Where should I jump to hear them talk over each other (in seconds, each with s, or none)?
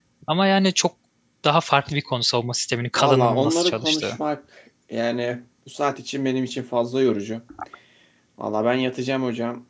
3.0 s